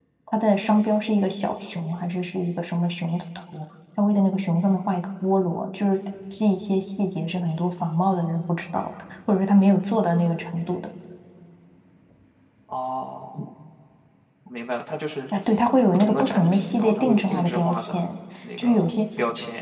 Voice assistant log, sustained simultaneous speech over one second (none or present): present